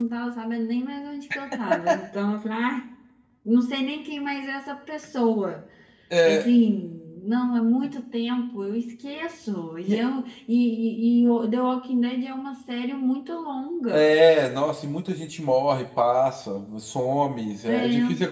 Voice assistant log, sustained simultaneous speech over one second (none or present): none